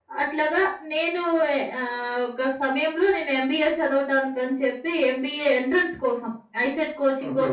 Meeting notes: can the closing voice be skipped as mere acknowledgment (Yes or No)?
Yes